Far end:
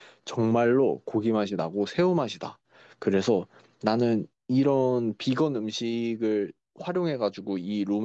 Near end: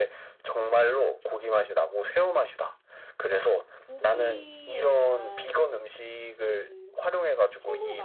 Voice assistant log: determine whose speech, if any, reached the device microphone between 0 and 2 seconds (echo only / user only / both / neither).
echo only